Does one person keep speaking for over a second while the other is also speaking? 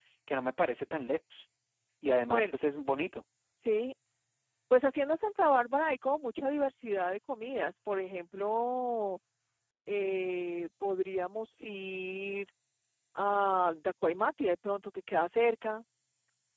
No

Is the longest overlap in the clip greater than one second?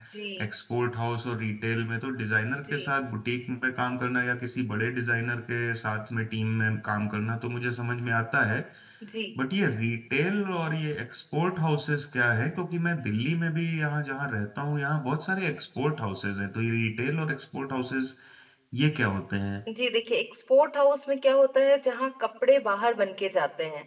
No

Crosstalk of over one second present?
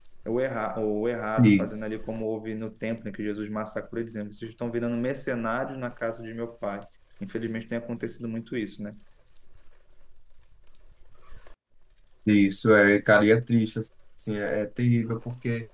No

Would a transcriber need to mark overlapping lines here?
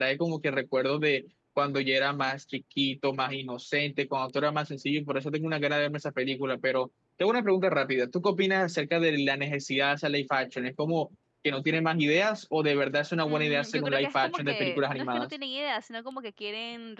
Yes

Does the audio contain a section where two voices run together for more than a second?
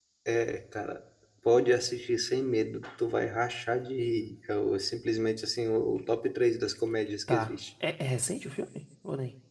No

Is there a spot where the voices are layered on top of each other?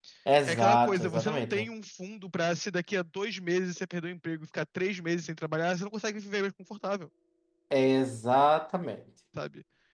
Yes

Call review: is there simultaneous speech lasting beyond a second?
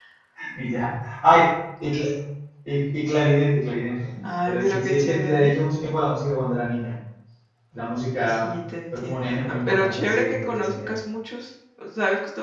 Yes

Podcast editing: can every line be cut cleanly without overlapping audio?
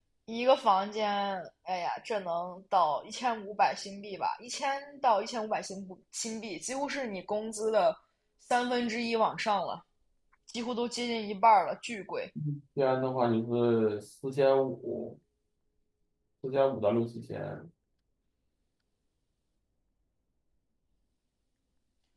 Yes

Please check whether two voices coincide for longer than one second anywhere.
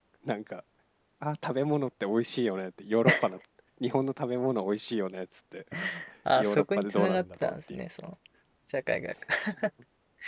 Yes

